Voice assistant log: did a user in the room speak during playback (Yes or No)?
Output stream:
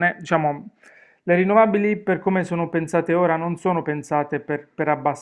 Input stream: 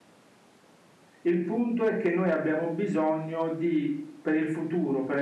Yes